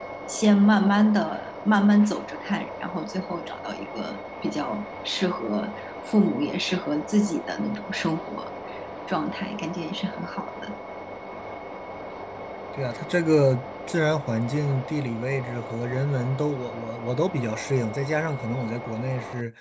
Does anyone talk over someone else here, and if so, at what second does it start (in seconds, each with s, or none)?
none